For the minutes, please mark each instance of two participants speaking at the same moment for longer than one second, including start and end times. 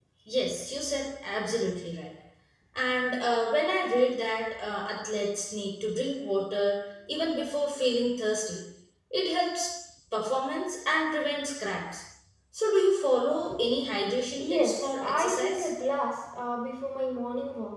14.4-15.7

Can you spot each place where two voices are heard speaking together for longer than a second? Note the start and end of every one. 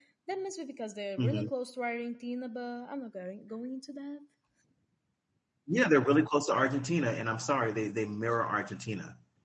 none

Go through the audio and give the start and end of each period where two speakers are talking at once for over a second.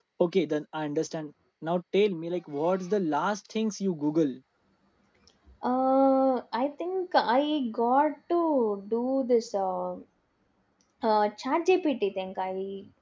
none

